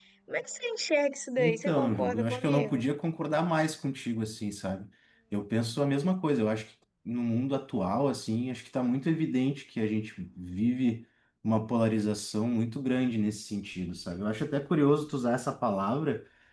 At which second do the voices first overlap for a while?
1.4 s

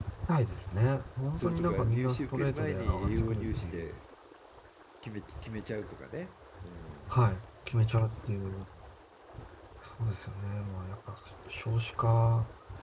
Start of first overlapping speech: 1.4 s

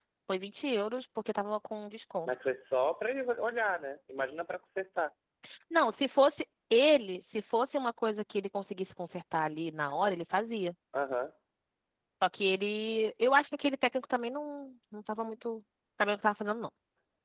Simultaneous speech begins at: none

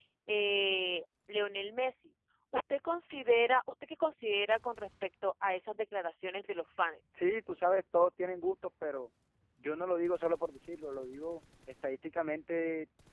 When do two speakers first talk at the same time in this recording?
none

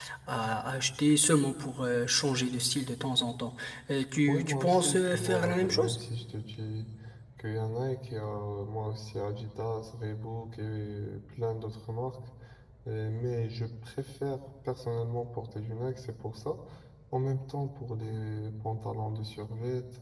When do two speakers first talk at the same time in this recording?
4.3 s

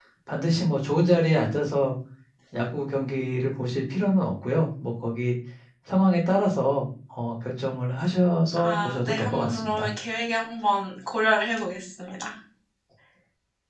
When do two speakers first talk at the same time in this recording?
8.6 s

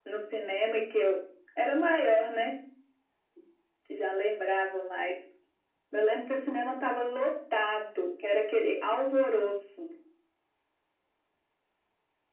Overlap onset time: none

